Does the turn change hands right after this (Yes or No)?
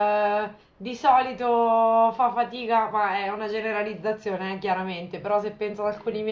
No